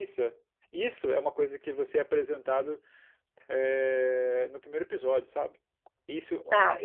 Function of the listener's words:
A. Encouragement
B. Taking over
A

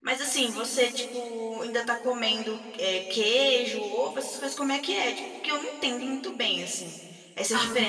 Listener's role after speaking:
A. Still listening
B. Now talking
A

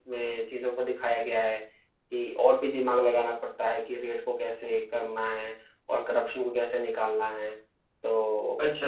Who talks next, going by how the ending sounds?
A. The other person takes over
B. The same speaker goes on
B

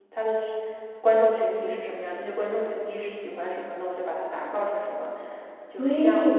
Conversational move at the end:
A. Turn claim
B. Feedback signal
A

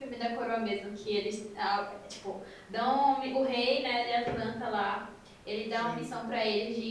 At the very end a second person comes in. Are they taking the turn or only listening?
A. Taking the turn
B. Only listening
B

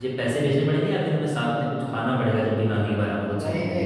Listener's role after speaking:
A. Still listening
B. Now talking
B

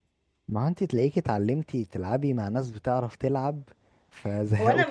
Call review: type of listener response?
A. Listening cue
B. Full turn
B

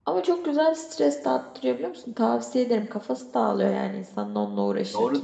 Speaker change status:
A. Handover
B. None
A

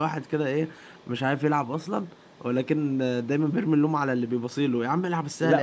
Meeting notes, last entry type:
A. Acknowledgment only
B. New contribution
B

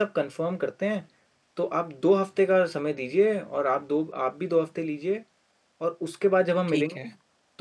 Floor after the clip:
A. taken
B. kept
B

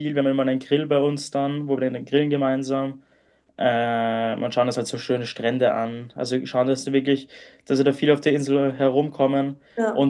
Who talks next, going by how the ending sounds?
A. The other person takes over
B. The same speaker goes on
B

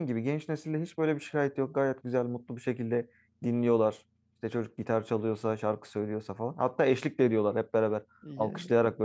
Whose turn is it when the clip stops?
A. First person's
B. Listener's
A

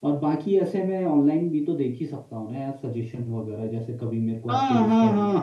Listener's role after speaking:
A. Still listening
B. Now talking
B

